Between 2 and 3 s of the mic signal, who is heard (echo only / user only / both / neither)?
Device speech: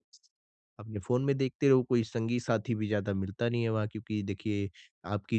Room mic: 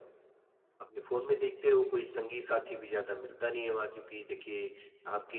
echo only